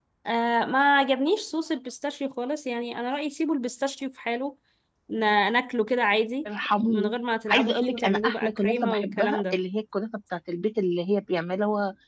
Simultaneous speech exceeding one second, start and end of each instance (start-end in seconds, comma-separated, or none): 7.5-9.5